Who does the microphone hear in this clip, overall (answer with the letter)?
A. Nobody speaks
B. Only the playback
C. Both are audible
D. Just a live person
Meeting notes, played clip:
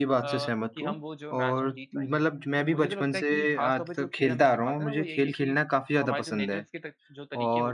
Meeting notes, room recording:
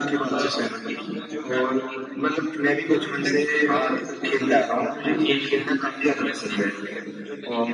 C